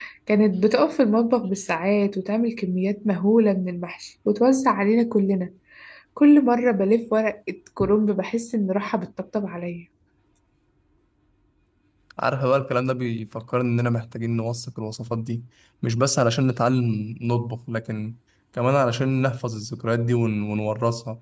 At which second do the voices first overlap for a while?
none

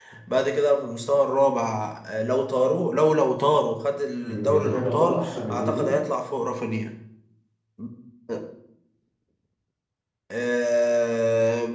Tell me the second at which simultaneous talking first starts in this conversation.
4.2 s

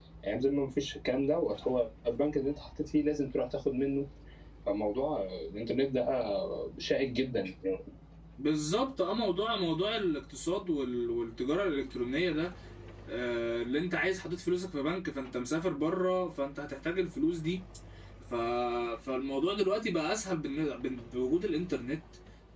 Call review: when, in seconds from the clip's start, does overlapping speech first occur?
none

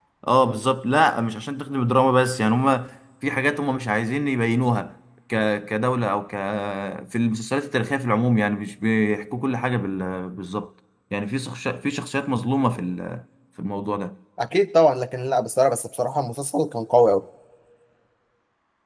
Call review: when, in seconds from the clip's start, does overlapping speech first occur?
none

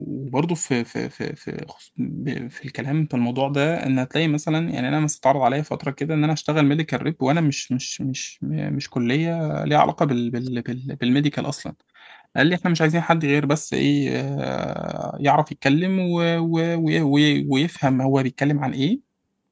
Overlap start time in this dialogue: none

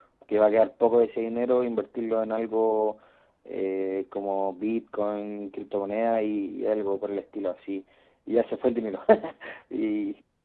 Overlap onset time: none

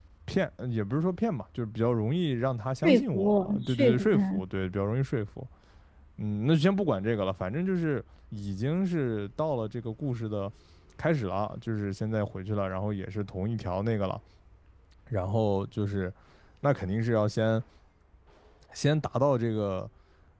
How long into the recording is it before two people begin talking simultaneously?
2.8 s

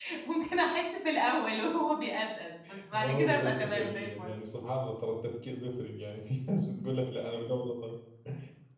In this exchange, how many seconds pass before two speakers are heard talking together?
2.9 s

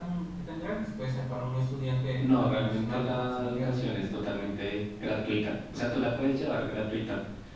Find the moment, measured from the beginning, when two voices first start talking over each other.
2.2 s

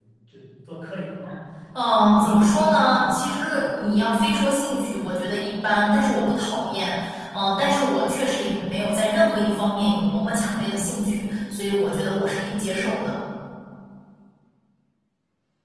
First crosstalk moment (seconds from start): 1.9 s

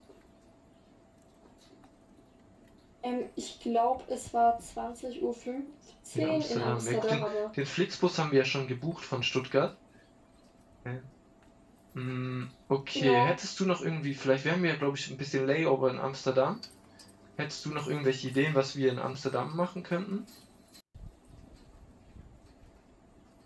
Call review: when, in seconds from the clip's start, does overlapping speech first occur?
6.2 s

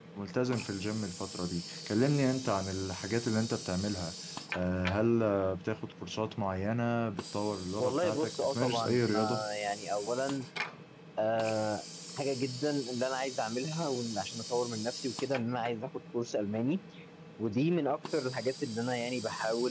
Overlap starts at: 7.8 s

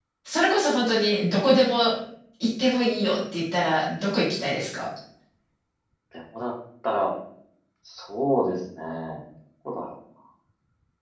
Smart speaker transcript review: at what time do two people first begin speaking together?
none

